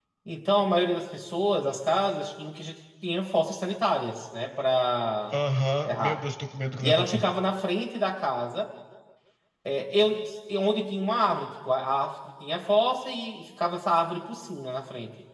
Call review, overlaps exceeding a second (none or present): none